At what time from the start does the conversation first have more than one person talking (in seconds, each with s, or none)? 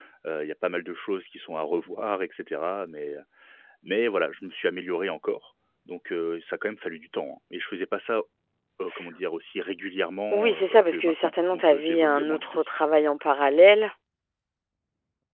10.3 s